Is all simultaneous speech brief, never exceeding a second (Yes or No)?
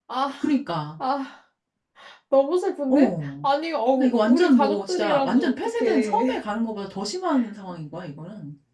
No